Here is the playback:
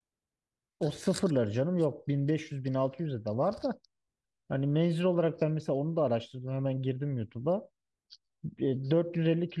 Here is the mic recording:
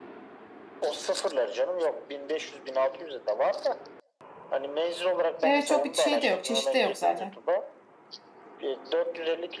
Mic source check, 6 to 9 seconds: both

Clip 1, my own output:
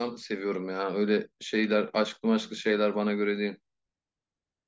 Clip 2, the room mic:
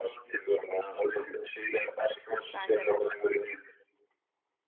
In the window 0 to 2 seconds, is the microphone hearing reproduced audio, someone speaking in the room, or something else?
echo only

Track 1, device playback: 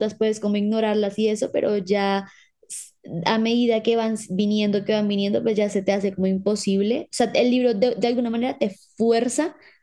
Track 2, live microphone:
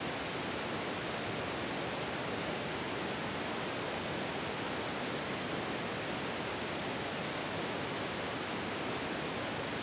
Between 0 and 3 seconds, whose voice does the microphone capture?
neither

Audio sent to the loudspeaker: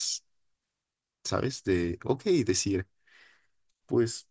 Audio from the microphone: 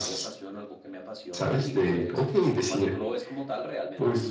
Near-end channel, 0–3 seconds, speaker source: both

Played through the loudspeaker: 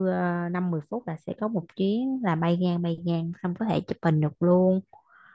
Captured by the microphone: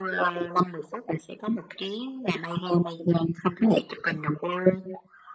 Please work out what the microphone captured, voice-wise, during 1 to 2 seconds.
echo only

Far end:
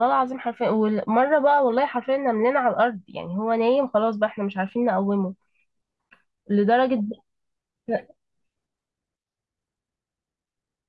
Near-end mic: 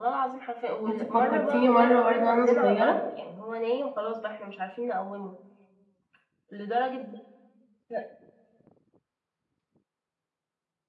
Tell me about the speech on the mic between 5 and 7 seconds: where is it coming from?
echo only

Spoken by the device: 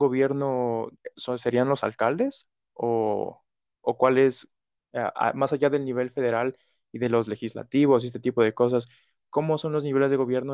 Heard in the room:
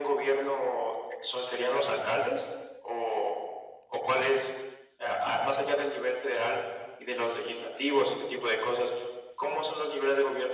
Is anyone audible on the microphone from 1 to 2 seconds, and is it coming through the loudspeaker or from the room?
echo only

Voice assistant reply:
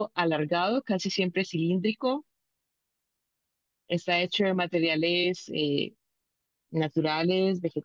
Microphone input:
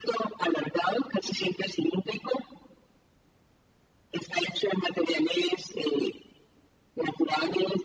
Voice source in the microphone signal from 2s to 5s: echo only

